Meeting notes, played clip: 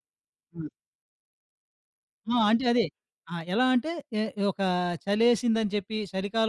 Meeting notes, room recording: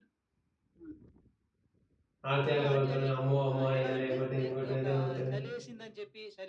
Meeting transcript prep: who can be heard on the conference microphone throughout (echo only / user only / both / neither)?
both